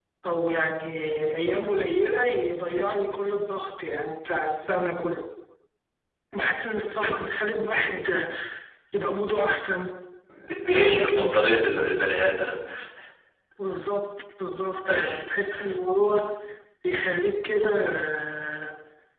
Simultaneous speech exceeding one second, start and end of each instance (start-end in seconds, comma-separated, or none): 10.8-12.0